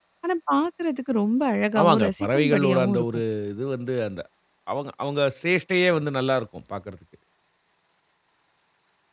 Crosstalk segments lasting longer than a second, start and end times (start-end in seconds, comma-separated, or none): 1.8-3.0